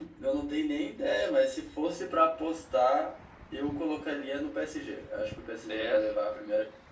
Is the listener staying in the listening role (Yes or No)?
Yes